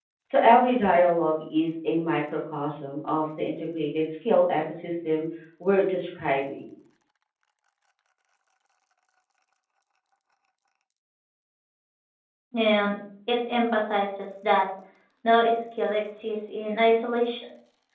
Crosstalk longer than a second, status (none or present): none